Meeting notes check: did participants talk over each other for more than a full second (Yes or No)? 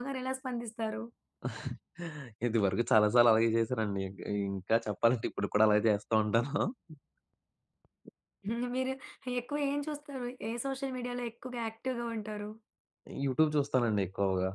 No